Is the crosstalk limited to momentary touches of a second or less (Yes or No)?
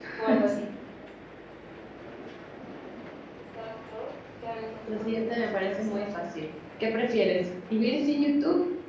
No